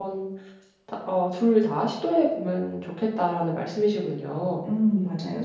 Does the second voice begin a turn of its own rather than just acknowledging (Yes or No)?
Yes